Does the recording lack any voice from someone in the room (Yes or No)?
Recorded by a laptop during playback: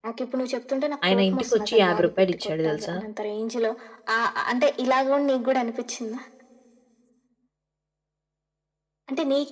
No